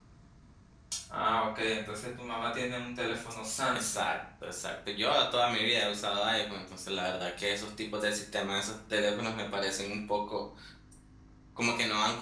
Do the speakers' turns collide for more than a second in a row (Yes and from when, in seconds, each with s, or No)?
No